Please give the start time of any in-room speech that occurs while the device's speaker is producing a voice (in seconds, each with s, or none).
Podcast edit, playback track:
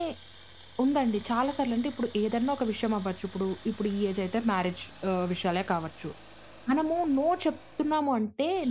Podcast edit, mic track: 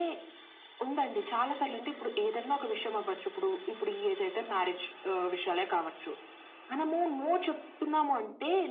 none